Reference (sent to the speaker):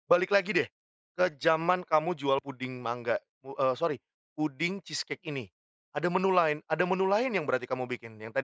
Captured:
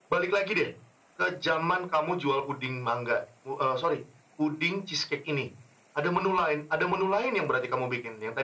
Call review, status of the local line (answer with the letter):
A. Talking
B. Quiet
B